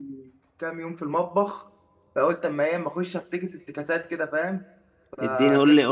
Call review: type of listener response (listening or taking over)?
taking over